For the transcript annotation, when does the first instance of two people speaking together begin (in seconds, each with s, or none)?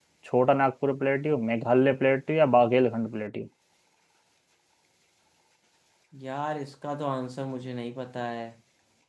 none